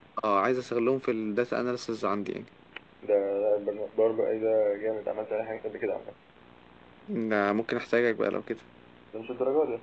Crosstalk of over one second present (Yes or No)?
No